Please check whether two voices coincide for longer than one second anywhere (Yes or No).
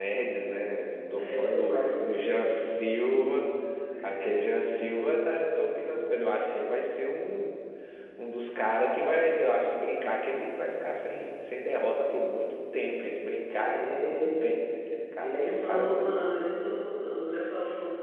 Yes